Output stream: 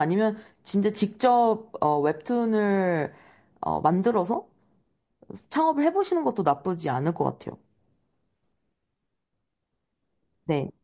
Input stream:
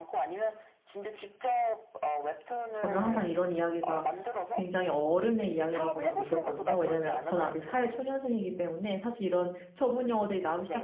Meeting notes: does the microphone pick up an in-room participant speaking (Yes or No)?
Yes